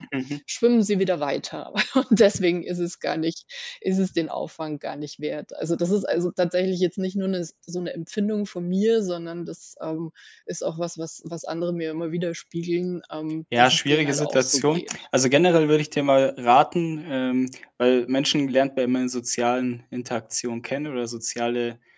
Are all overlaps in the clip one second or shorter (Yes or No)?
No